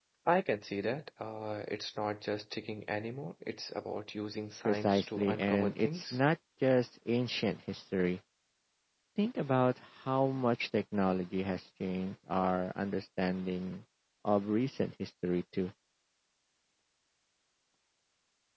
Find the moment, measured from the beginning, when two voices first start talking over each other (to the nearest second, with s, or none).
5 s